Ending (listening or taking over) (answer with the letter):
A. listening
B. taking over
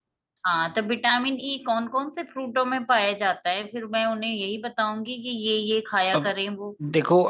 B